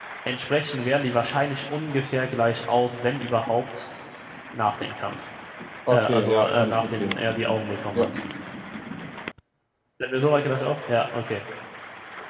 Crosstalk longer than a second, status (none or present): present